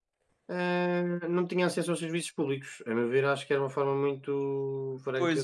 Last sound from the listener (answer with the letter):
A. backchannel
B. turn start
B